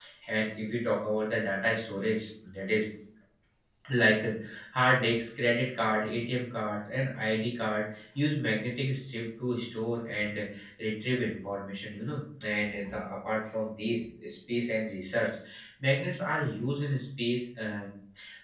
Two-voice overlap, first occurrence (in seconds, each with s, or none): none